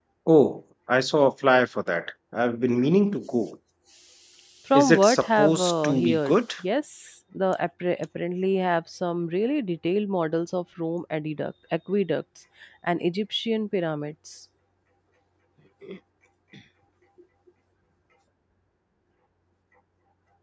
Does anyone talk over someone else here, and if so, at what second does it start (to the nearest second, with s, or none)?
5 s